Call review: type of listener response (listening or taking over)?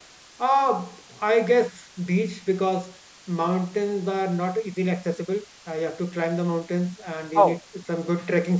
listening